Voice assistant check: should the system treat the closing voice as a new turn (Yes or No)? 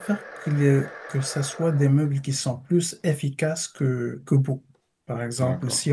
No